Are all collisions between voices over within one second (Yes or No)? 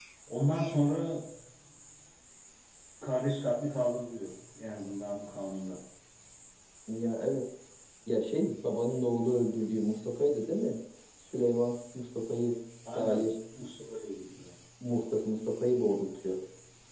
Yes